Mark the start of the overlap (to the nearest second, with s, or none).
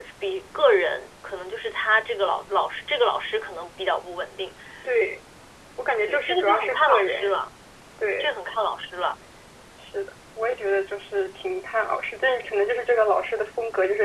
6 s